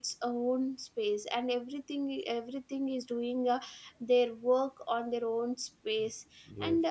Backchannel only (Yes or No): Yes